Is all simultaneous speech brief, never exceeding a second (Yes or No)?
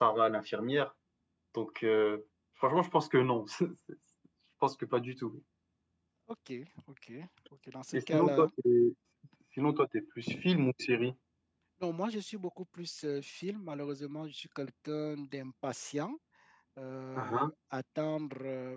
Yes